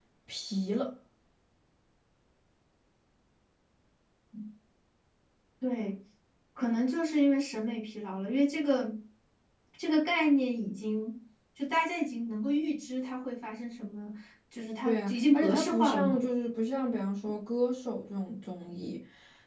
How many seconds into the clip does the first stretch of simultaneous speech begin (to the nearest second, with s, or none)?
15 s